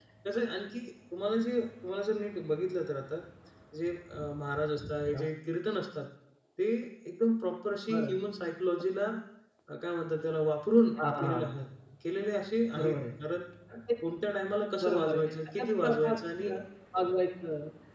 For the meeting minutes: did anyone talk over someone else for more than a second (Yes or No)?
Yes